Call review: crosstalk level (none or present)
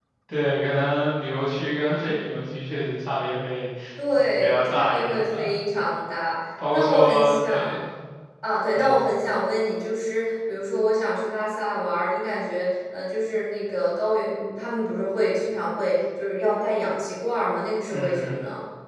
present